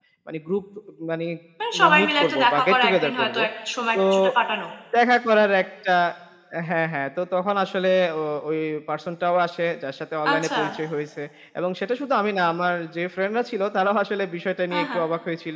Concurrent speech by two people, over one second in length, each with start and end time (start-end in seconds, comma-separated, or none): 1.8-3.4